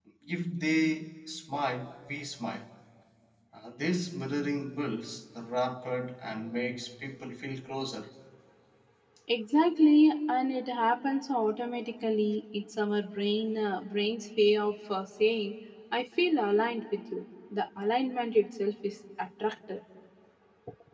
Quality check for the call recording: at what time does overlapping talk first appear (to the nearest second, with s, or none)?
none